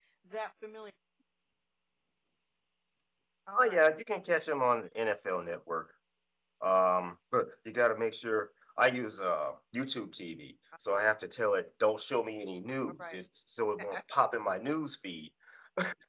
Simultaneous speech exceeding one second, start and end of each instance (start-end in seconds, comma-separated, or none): none